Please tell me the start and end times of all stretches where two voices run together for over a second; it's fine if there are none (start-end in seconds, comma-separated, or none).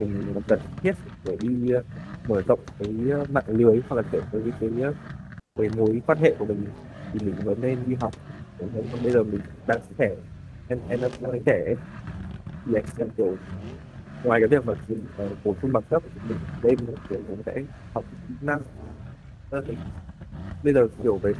none